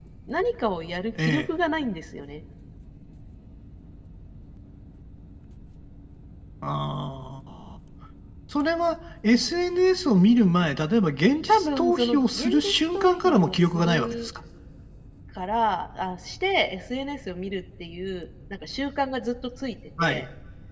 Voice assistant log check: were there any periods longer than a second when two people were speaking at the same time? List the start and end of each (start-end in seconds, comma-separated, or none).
11.5-14.3